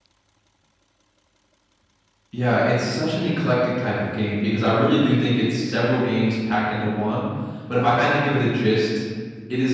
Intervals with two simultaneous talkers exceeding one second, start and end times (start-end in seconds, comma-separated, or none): none